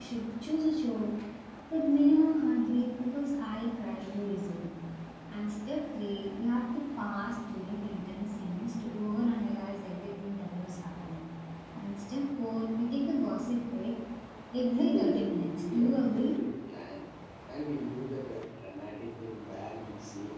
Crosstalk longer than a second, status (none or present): present